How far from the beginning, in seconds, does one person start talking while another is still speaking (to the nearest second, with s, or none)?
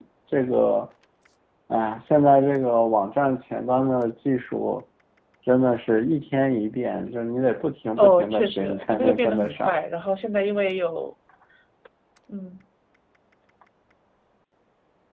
8 s